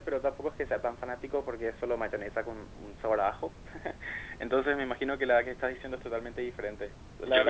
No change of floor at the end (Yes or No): No